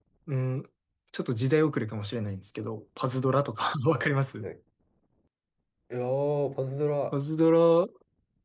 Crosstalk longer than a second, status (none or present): none